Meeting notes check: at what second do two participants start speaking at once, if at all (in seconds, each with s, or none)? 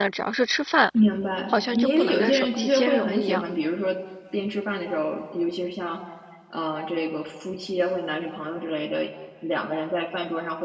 1.5 s